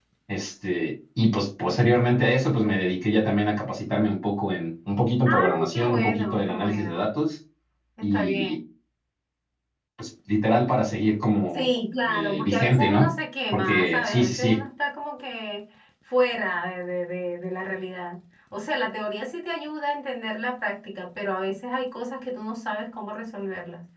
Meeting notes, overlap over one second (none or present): present